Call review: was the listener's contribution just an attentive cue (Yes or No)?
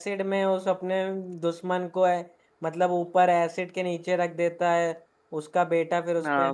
No